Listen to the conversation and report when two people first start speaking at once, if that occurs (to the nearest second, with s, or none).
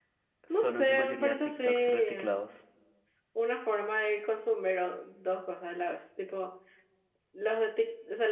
1 s